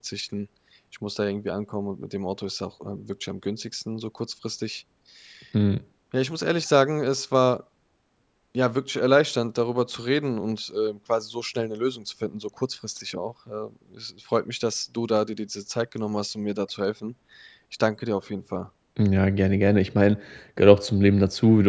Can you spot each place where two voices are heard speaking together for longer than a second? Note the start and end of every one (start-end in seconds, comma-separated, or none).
none